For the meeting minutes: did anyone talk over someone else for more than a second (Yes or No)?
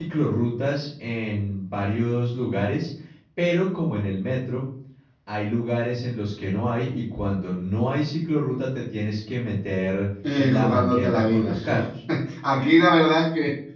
Yes